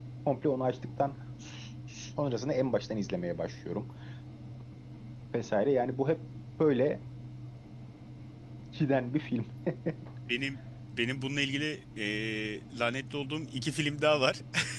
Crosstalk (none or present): none